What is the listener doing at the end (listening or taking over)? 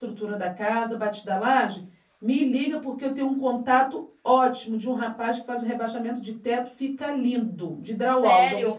taking over